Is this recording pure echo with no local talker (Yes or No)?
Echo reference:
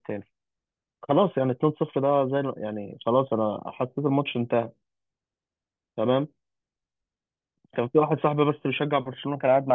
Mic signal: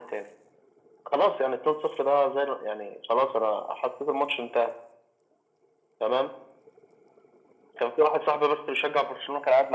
Yes